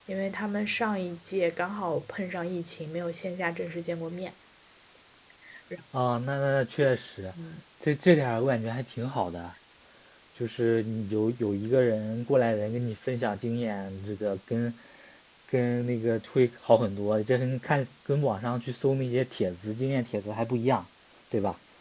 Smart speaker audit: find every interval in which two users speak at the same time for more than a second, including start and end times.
none

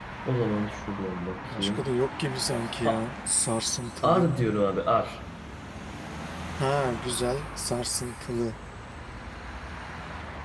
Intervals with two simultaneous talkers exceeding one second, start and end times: none

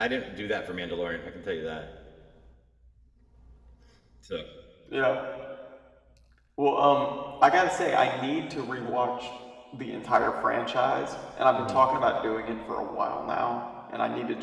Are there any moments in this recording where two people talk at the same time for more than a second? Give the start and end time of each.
none

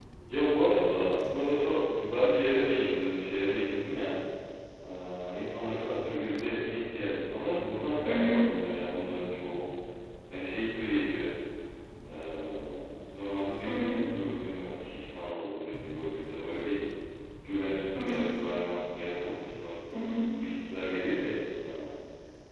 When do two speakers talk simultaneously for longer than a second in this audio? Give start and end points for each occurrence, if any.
none

